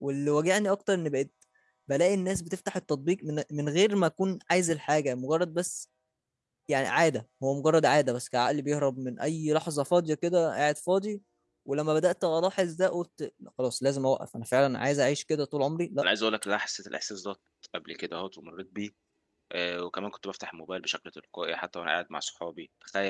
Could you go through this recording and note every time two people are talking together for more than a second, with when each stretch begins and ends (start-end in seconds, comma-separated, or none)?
none